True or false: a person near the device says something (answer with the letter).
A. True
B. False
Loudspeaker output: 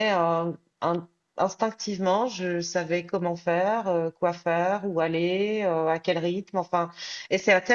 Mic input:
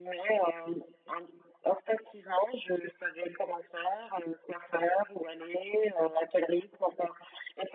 B